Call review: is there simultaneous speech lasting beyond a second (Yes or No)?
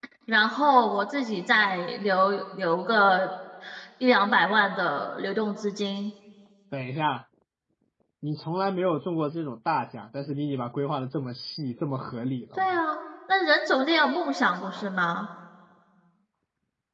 No